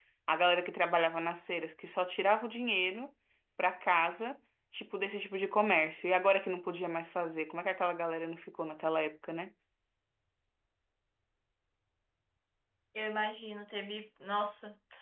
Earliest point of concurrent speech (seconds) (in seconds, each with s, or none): none